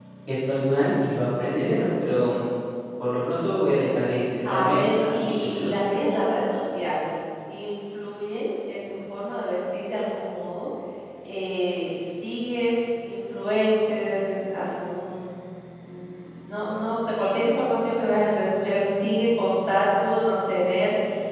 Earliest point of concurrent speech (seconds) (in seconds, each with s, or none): 4.4 s